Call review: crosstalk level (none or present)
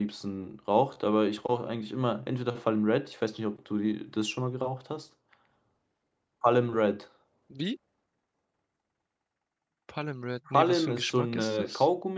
present